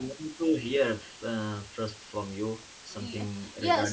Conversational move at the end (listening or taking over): taking over